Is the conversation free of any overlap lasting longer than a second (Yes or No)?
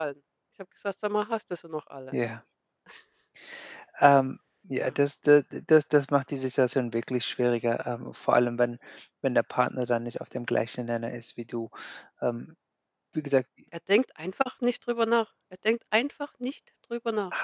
Yes